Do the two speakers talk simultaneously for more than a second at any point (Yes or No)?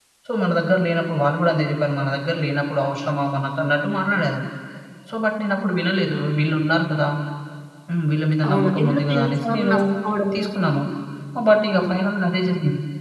Yes